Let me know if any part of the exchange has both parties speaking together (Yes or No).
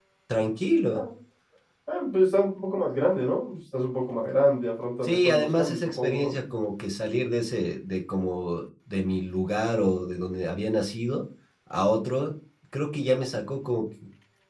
Yes